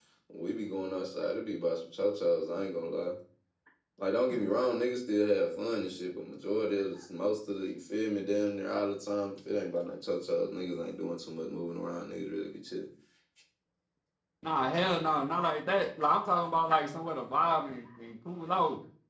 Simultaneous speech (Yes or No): No